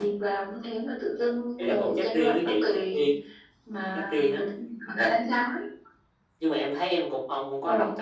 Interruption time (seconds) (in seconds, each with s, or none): 1.6 s